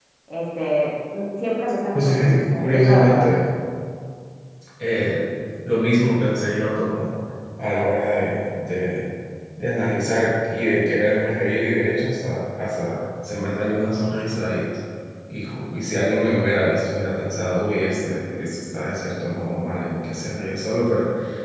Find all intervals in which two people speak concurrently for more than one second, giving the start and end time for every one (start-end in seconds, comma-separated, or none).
1.9-3.2